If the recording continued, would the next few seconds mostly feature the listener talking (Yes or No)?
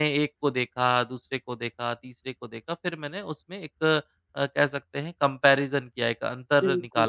No